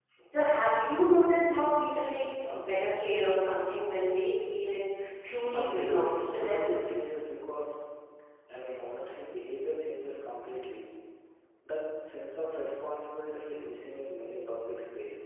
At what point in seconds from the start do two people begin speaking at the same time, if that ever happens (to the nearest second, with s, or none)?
5 s